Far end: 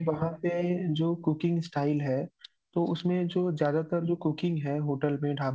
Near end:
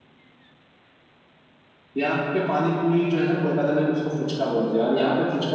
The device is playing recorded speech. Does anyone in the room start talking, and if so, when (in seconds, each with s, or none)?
2.0 s